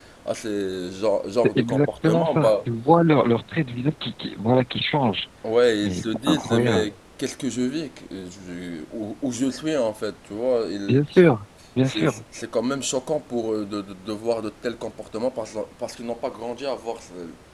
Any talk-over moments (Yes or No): Yes